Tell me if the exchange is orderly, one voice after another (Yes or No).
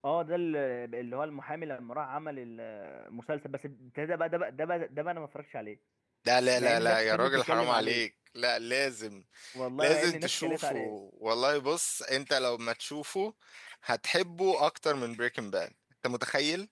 No